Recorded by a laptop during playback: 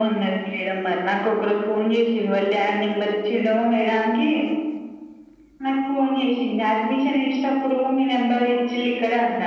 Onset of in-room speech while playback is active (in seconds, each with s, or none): none